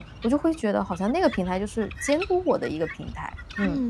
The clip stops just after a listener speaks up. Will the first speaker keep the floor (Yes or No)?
No